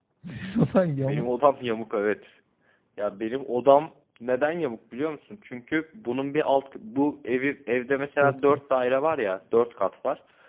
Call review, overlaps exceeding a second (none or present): none